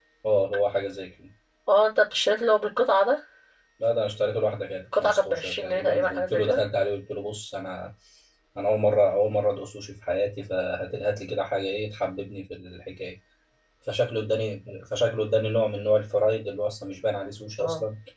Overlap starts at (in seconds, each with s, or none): 4.9 s